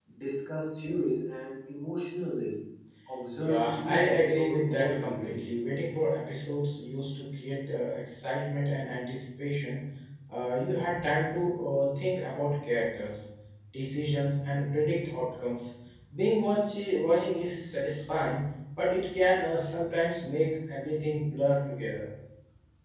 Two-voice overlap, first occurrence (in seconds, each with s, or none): 3.4 s